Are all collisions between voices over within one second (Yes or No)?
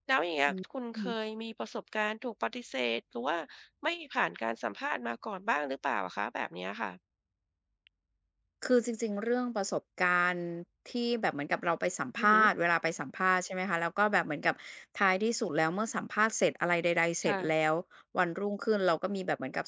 Yes